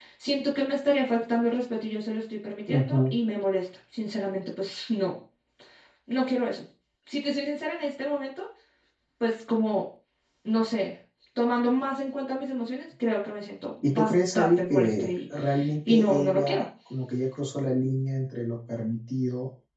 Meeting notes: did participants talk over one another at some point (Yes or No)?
Yes